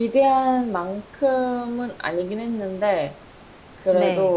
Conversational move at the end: listening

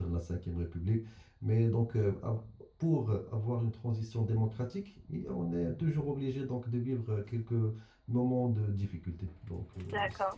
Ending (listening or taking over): taking over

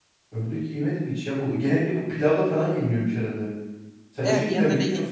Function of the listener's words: taking over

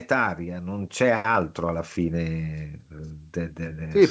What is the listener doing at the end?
taking over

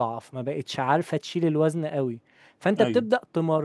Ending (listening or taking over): listening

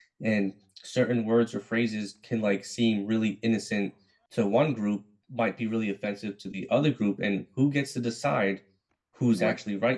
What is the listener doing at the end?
listening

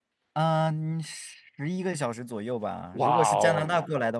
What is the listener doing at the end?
listening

